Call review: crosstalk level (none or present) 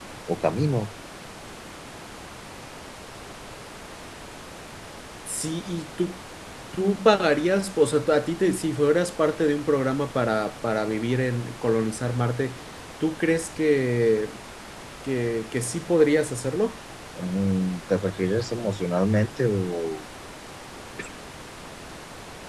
none